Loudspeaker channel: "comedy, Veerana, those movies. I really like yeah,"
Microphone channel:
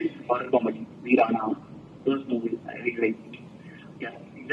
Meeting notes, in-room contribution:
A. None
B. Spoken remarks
A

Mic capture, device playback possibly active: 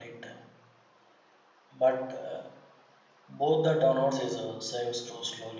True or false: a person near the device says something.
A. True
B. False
A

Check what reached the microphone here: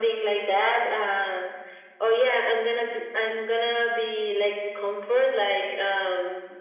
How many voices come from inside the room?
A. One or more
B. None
B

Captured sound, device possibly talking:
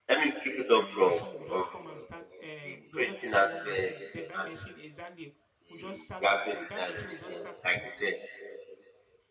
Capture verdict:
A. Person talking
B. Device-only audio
A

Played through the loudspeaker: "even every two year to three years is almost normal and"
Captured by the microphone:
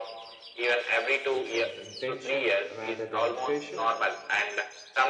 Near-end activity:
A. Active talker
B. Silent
A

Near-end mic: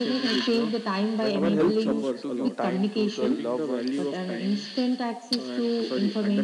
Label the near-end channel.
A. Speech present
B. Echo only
A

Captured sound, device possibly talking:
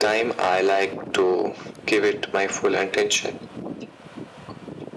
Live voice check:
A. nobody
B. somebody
A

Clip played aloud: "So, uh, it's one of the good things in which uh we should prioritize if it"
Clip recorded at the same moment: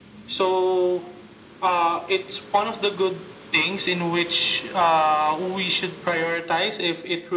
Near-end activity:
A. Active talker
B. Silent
B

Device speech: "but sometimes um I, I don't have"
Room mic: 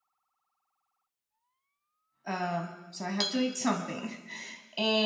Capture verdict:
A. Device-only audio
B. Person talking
B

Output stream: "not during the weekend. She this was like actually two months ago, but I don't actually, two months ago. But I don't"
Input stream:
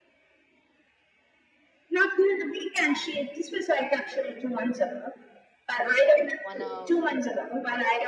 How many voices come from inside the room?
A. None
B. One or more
B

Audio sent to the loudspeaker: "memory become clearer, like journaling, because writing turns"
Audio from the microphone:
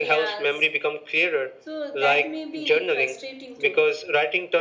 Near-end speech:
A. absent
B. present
B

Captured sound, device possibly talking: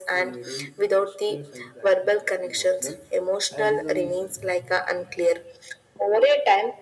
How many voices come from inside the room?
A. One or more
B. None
A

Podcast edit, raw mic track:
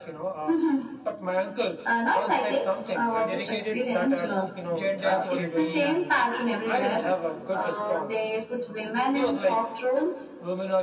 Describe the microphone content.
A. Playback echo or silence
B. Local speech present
B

